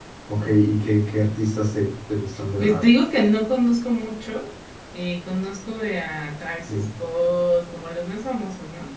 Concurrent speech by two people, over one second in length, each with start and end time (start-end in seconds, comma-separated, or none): none